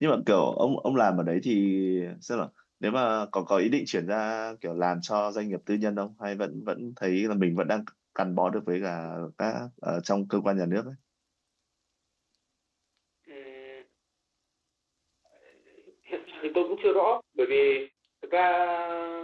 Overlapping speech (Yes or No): No